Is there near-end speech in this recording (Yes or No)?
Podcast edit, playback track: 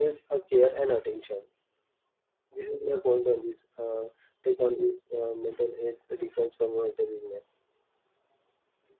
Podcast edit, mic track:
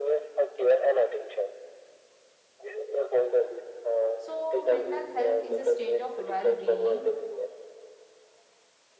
Yes